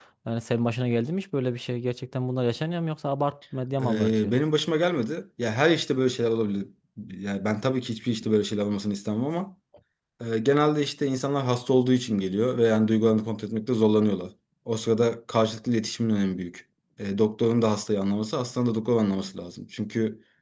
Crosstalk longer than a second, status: none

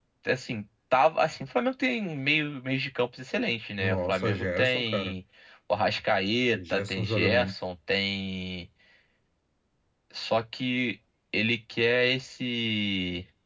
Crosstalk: present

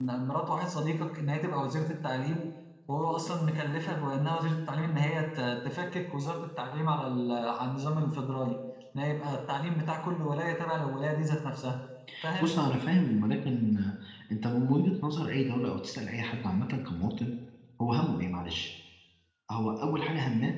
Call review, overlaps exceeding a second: none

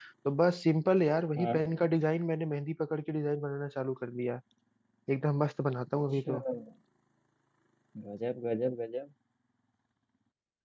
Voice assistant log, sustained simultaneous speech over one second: none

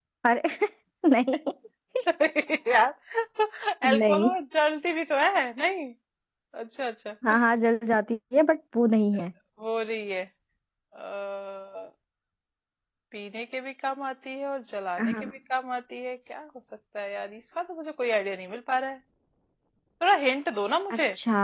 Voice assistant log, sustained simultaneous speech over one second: none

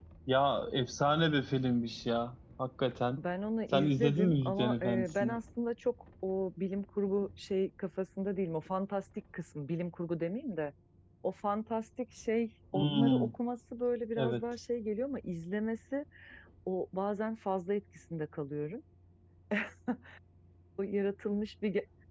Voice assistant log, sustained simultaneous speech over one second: present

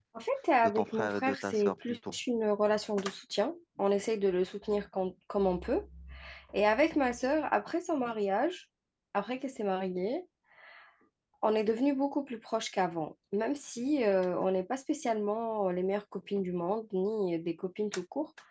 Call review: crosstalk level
present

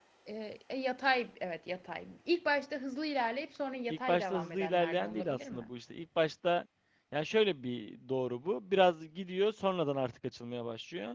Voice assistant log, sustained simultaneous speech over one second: present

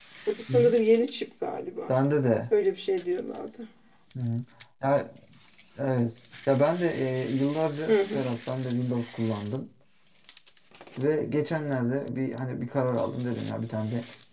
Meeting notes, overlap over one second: none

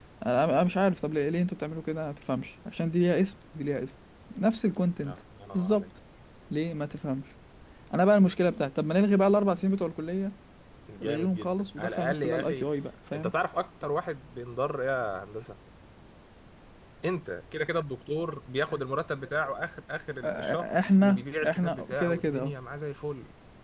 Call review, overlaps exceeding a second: present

